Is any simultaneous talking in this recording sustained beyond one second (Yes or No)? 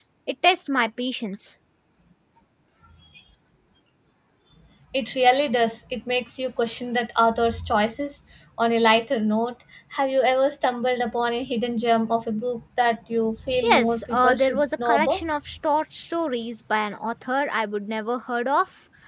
Yes